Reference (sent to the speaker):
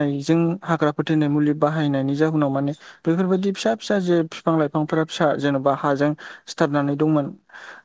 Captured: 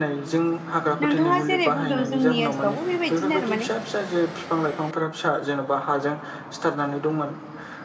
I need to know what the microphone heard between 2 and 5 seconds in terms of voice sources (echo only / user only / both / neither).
both